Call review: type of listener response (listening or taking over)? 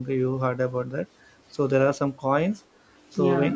listening